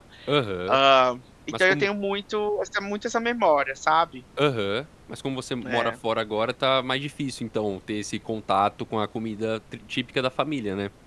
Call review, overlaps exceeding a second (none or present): none